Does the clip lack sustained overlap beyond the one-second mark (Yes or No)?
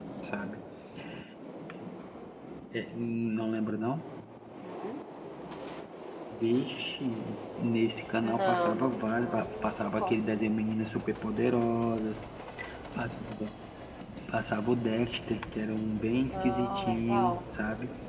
No